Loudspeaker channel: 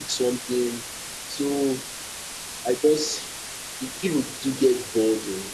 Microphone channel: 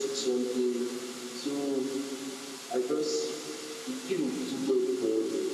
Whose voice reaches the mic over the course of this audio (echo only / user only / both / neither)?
echo only